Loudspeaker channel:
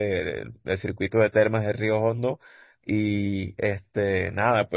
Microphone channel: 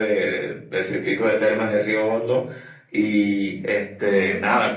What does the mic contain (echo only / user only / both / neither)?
echo only